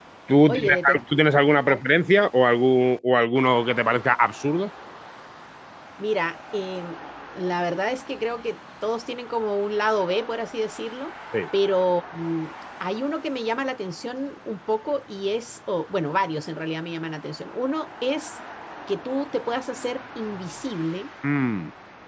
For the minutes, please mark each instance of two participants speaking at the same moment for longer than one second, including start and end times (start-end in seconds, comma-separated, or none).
none